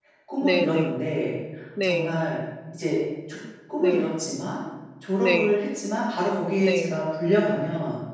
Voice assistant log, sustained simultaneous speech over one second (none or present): none